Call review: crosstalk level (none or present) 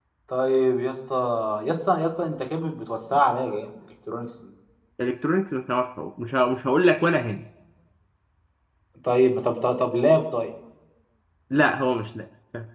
none